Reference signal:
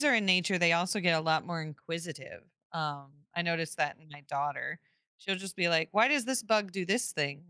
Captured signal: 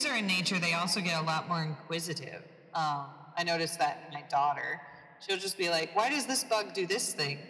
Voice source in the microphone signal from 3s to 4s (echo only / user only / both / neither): echo only